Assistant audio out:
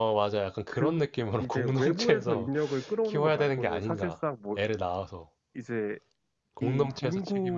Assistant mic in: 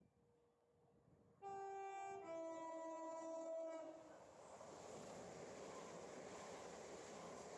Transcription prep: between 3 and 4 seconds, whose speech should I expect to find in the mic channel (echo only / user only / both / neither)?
neither